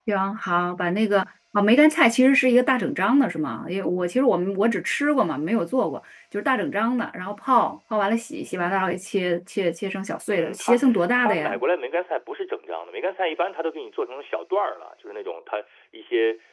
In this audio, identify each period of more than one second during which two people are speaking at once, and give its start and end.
10.3-11.6

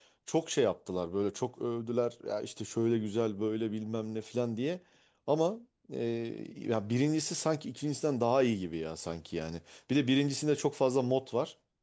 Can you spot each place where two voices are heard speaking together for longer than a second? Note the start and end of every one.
none

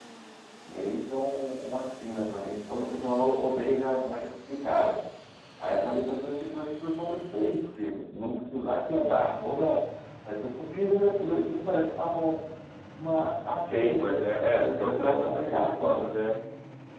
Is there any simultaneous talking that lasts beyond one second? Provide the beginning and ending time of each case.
13.6-16.0

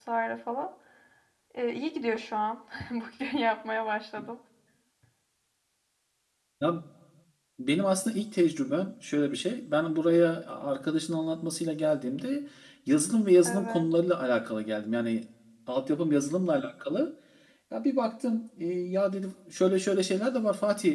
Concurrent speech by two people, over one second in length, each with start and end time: none

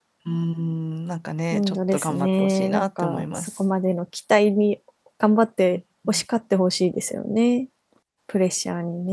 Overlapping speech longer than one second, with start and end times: 1.5-3.5

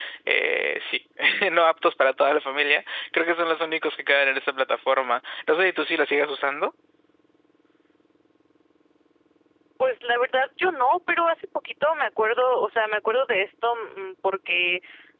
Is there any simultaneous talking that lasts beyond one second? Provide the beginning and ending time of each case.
none

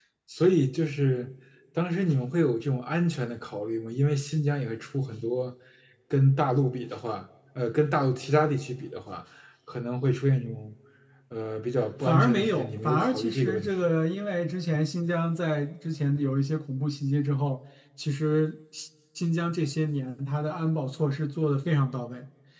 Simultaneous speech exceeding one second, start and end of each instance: 12.0-13.7

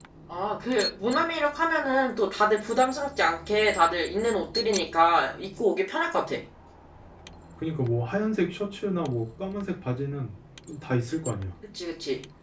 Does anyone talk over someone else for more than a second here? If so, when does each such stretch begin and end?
none

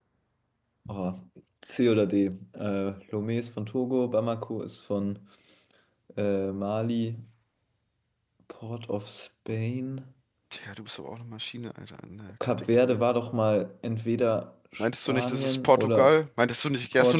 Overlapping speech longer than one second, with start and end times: 14.8-16.1

